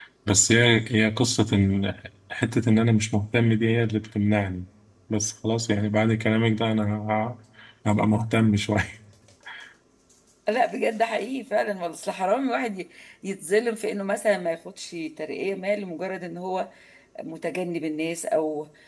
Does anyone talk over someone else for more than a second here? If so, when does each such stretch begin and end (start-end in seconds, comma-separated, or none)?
none